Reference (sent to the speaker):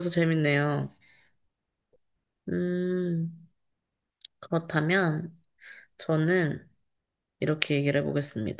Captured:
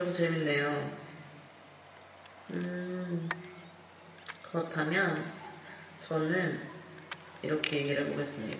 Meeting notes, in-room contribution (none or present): none